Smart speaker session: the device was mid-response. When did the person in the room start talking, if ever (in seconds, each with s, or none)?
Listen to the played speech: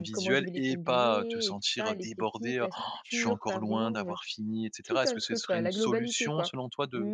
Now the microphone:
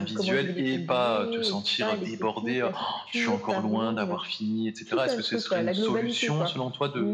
none